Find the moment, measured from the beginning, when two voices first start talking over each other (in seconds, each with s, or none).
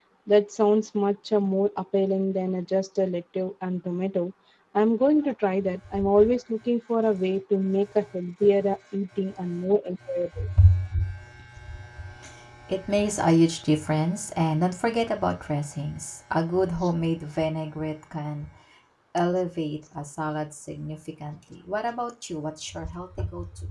none